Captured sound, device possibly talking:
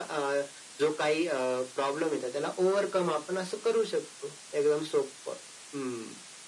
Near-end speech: none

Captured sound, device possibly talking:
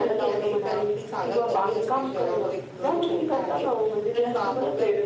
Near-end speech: none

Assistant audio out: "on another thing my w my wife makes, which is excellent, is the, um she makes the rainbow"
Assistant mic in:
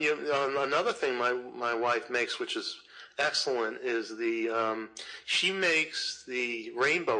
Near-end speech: none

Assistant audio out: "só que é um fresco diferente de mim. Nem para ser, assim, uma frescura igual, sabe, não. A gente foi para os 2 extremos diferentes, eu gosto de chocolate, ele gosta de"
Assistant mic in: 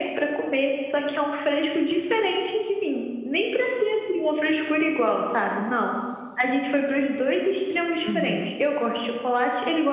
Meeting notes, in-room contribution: present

